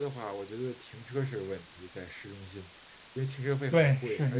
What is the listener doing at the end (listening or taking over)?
taking over